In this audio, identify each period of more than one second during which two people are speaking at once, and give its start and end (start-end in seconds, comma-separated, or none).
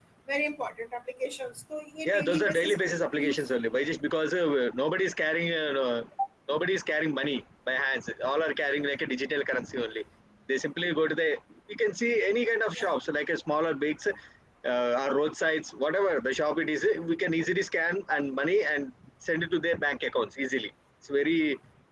2.0-3.5